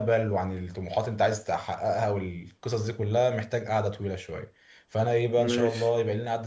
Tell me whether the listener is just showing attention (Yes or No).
Yes